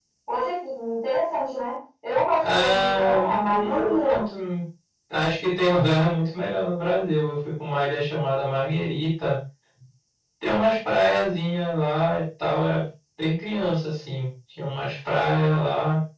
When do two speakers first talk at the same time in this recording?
2.4 s

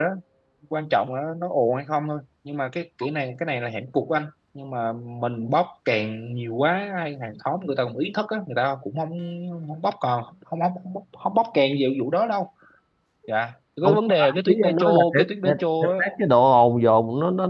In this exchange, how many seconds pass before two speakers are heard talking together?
13.8 s

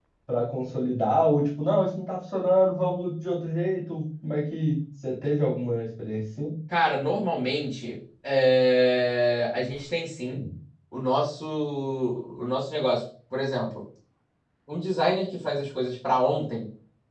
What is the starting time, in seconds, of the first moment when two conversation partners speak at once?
none

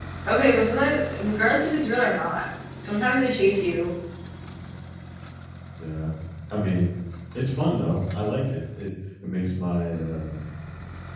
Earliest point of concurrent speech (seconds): none

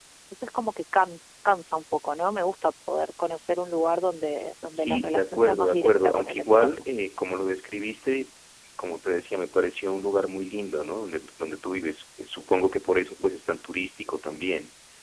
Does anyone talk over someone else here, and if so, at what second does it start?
4.7 s

